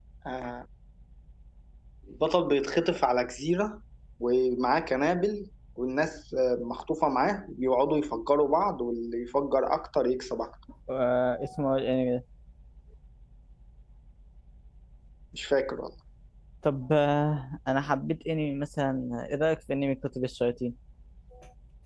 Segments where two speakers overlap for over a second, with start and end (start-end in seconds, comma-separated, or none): none